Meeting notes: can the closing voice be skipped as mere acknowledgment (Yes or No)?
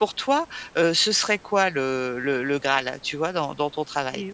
No